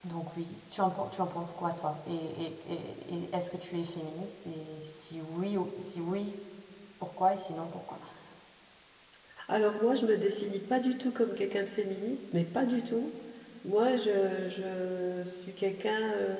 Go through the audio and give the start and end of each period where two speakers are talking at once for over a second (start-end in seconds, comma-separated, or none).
none